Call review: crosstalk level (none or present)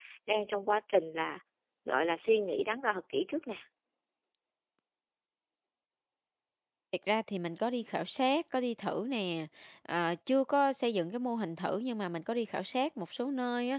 none